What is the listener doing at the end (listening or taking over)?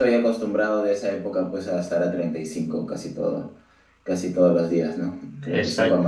taking over